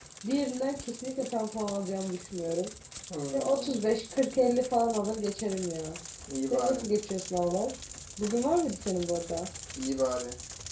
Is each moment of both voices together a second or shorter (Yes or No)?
Yes